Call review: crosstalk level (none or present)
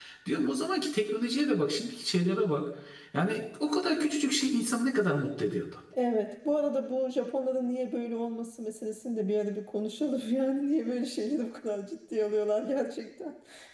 none